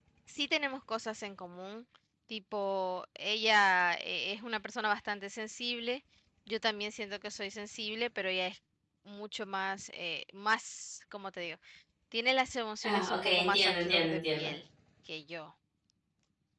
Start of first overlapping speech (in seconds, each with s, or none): 12.8 s